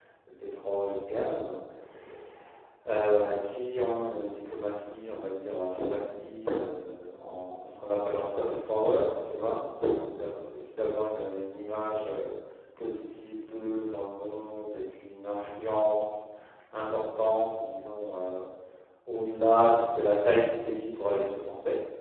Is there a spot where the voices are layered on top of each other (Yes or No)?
No